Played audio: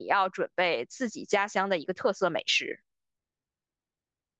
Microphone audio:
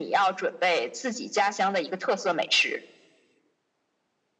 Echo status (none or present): present